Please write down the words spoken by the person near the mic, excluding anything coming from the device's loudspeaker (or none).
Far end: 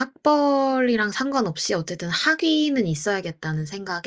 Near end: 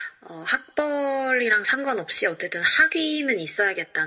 none